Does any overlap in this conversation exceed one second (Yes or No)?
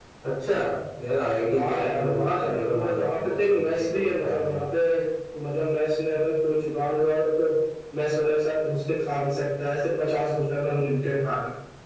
Yes